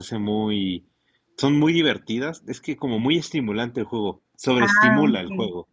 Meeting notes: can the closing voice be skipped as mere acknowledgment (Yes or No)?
No